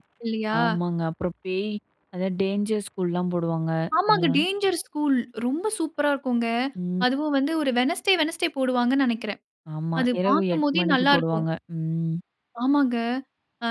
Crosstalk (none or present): present